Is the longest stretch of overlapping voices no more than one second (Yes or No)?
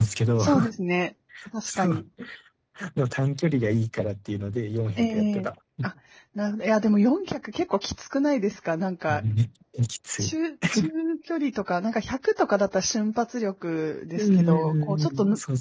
No